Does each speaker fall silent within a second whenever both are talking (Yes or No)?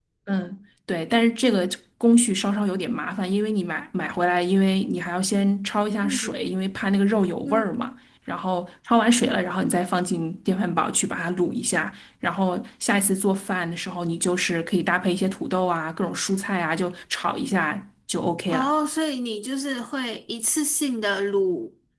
Yes